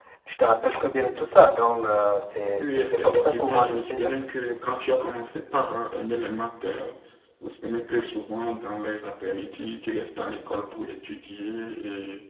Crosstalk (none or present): present